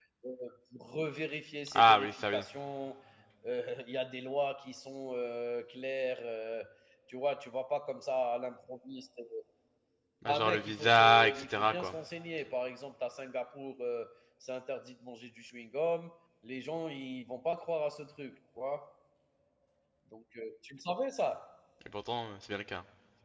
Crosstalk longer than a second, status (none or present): present